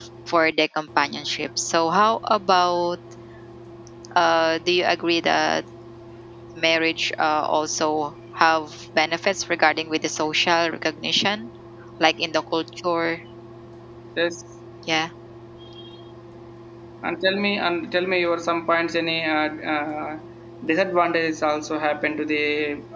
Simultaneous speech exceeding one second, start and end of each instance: none

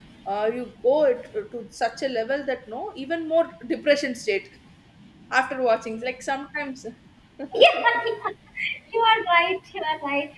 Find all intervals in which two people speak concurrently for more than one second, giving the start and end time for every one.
none

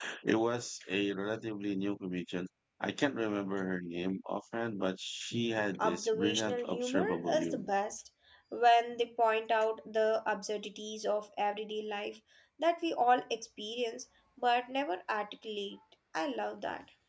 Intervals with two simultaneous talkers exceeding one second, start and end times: 5.8-7.7

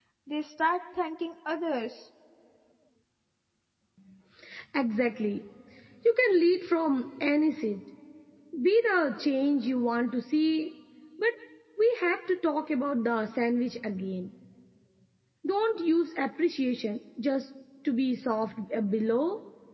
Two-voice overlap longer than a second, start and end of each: none

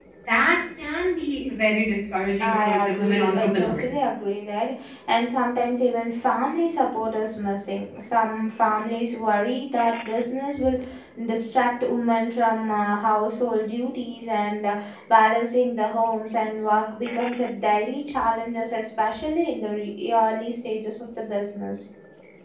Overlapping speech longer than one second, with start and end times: 2.4-3.8

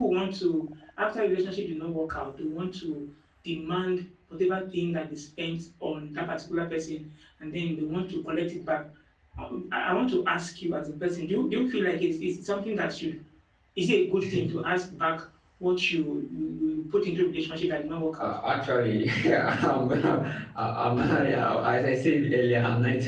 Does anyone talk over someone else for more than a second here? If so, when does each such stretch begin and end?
none

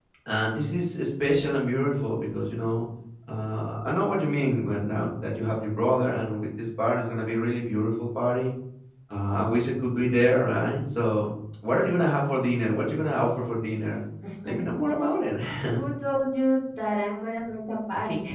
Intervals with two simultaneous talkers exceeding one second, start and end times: none

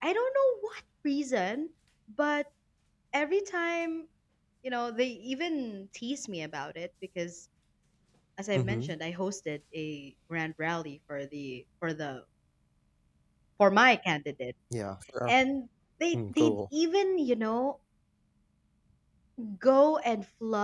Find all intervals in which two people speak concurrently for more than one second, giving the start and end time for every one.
none

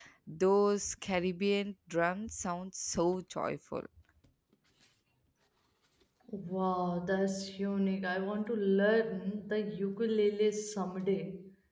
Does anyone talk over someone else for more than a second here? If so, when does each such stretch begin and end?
none

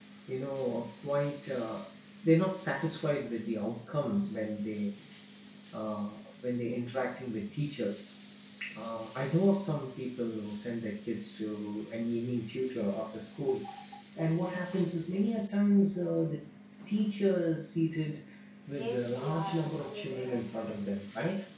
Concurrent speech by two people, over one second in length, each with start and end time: 18.7-20.4

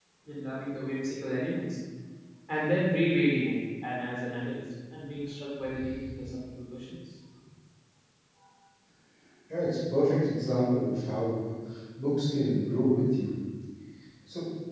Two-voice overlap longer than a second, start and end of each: none

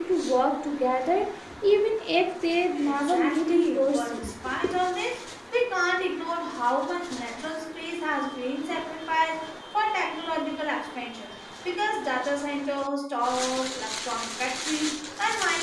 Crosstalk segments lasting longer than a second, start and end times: 2.8-4.3

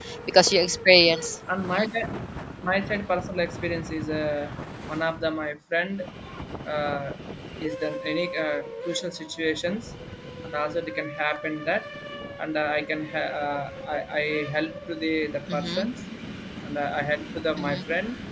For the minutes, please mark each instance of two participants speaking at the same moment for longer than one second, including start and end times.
none

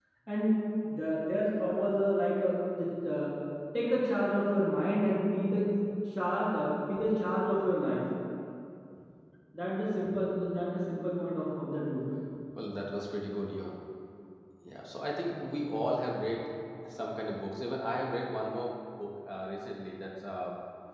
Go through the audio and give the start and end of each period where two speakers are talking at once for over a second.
none

